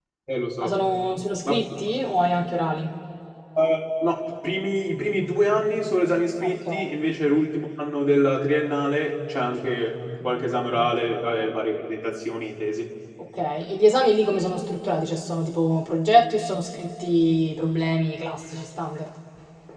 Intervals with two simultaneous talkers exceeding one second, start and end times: none

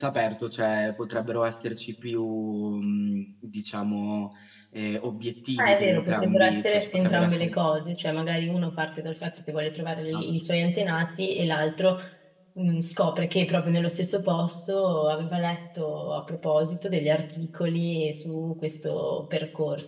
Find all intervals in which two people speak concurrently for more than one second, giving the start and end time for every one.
5.6-7.5

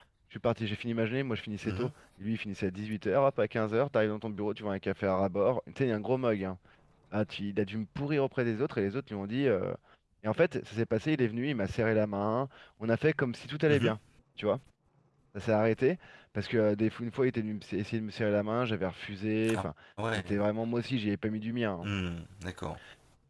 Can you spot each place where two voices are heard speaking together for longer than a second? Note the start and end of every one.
none

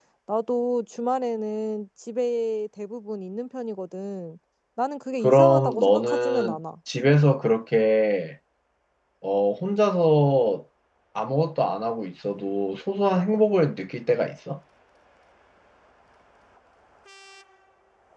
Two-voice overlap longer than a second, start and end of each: 5.2-6.6

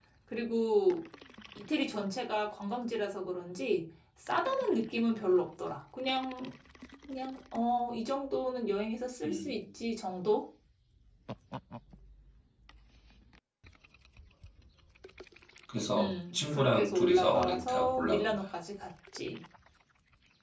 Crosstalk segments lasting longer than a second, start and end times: 16.0-18.5

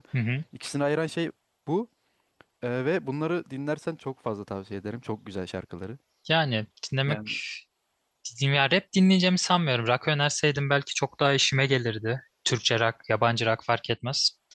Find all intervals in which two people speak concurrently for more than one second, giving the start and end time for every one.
none

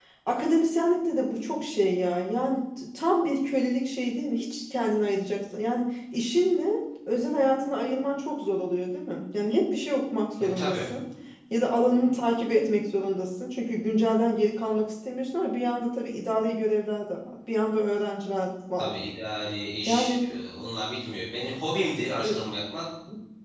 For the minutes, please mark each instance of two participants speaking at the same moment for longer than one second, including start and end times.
none

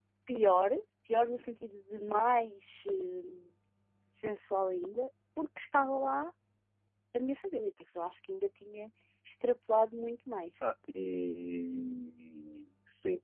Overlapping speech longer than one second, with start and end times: none

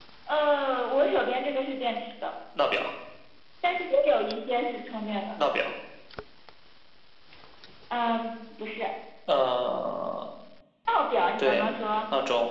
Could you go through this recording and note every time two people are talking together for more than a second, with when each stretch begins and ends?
none

